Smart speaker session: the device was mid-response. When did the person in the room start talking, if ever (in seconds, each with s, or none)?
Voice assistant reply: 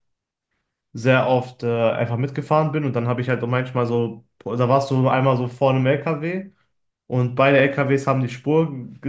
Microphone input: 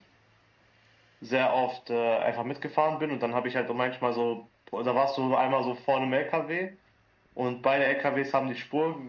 none